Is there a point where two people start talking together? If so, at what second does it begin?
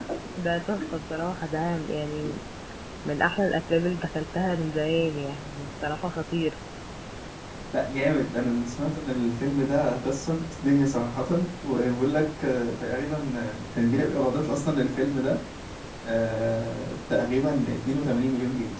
none

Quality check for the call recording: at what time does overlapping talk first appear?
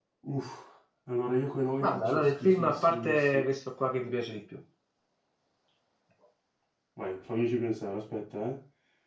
2 s

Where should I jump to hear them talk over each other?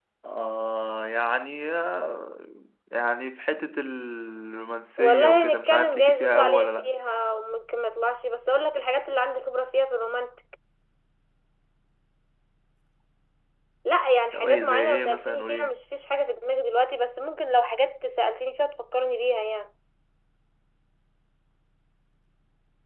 5 s

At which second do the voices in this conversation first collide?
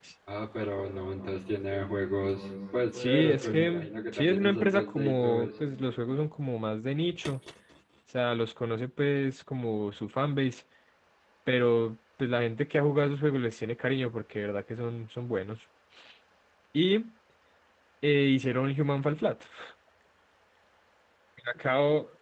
3 s

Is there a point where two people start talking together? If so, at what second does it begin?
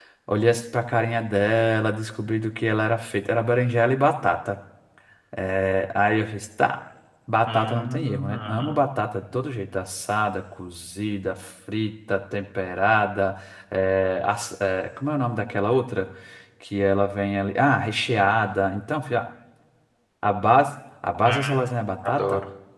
7 s

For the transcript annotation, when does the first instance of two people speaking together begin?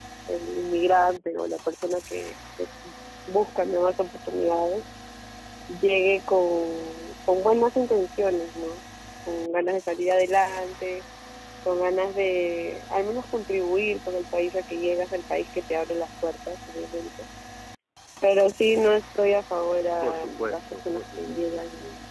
20 s

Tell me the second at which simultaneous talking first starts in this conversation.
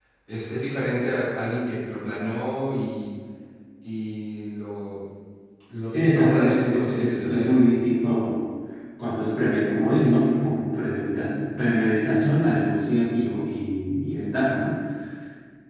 6 s

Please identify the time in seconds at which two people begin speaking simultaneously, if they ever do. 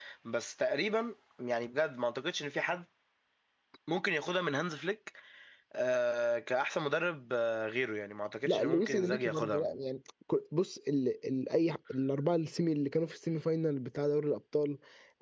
8 s

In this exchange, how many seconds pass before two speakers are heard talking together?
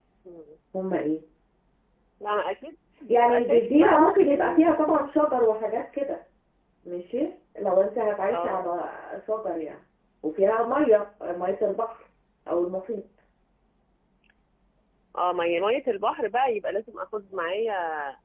3 s

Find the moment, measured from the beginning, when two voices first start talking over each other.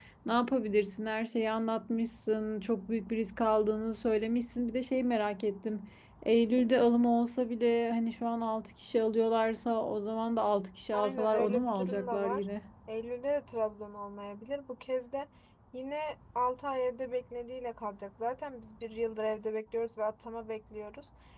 11 s

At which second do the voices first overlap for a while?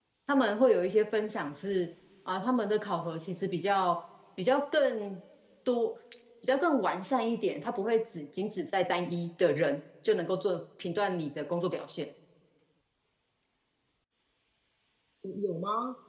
none

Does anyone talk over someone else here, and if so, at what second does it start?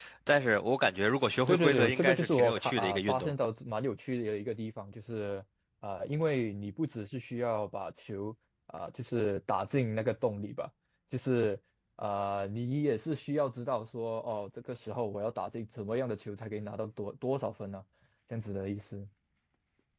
1 s

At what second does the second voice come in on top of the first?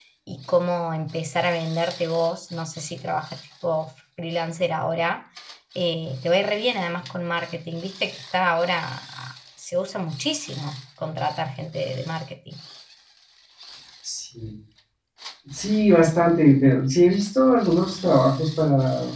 none

